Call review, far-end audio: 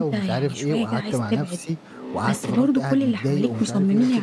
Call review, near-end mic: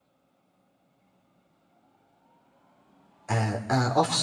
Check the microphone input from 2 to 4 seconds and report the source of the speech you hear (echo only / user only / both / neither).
user only